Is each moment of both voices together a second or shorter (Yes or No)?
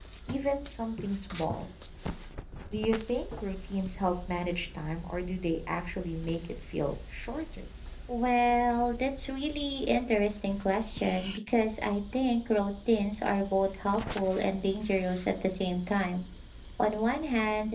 Yes